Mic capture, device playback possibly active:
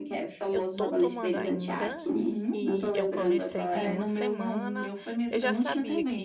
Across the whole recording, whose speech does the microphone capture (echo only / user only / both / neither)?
both